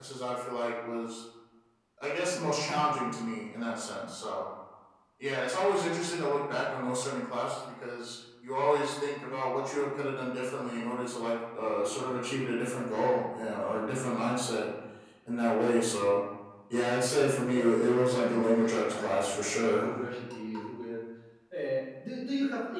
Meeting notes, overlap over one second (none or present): present